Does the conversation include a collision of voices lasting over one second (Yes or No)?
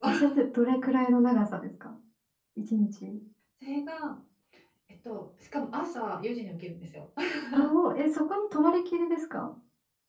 No